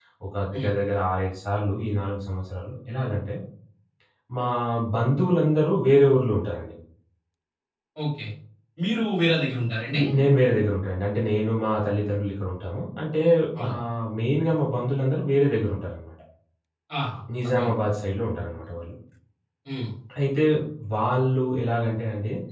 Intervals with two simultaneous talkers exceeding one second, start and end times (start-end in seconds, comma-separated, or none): none